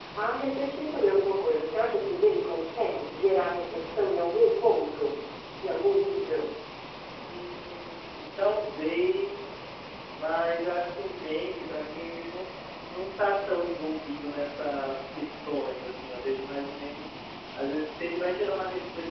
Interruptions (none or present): none